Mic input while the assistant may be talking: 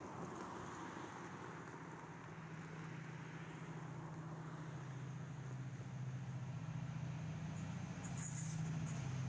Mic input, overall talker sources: neither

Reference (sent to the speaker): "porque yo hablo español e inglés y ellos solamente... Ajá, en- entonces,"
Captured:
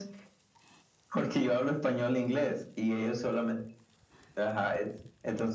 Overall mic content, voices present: echo only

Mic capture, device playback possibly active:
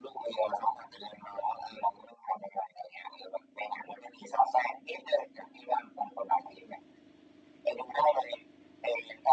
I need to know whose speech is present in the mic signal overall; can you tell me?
echo only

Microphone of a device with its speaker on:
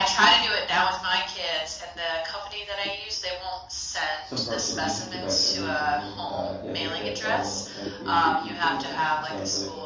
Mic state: both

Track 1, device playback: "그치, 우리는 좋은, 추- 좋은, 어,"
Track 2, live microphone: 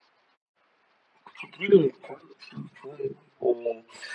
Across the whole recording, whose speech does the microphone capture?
echo only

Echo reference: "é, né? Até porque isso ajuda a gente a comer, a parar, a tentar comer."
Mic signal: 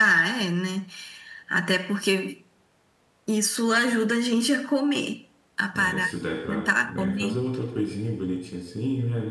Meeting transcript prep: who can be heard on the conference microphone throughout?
both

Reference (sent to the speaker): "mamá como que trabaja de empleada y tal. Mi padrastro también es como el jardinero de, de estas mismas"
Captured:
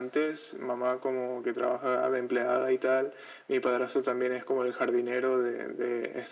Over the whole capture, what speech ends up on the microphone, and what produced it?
echo only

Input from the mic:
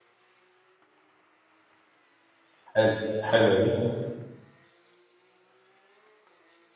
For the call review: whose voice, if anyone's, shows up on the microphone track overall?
user only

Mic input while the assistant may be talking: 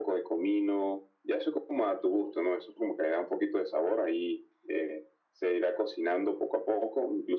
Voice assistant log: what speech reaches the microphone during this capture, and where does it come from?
echo only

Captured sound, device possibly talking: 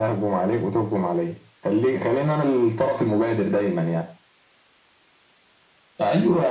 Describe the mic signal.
echo only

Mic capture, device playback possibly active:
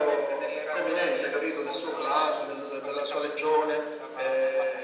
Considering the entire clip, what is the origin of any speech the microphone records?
echo only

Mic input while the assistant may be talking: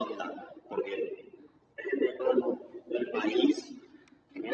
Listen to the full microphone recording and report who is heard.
echo only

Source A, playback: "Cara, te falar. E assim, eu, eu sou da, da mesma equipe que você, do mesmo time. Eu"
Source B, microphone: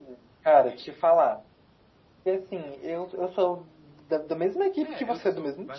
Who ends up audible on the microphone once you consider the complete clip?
both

